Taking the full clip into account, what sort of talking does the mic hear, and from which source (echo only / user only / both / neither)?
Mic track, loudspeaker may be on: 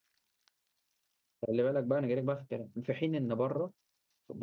user only